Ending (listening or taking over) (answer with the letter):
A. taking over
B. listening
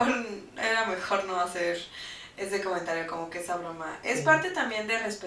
B